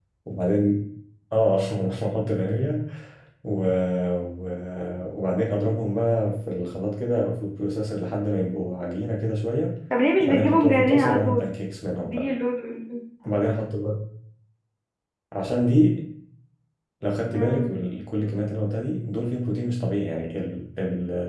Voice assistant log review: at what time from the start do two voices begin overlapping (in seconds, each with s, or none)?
10.2 s